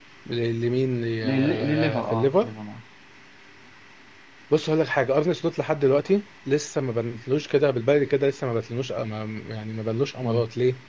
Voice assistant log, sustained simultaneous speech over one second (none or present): present